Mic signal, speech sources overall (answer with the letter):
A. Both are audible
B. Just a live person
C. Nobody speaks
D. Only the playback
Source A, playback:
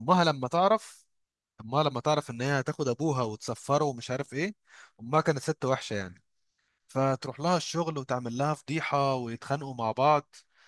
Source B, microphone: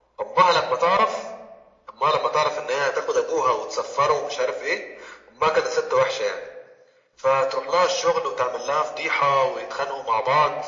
D